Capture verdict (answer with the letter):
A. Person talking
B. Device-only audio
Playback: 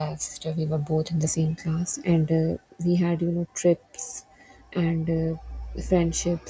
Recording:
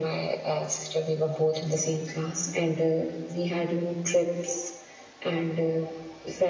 B